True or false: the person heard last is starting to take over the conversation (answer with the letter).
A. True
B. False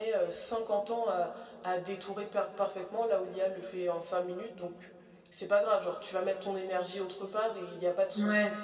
B